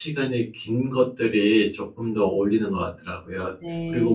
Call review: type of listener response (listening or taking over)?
listening